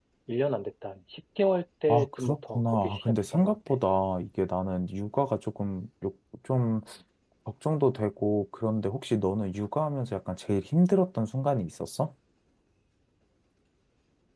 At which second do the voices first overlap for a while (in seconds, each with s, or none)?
1.9 s